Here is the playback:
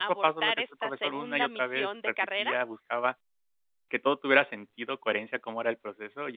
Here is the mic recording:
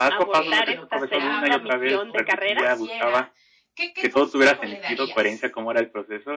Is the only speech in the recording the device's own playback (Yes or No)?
No